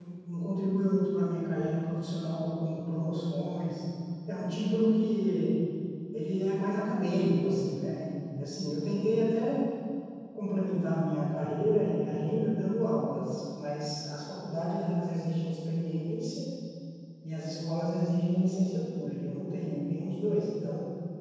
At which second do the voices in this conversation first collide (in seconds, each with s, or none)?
none